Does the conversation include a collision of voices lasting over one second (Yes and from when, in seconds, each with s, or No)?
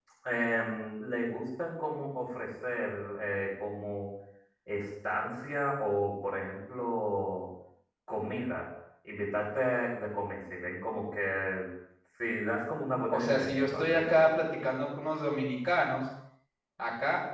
Yes, from 13.1 s